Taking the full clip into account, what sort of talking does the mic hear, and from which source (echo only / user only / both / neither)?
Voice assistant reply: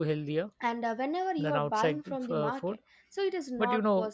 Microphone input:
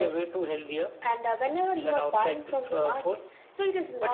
echo only